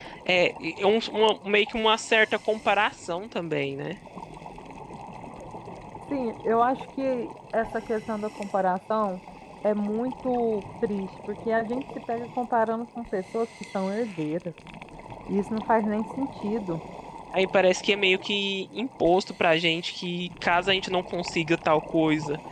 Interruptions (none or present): none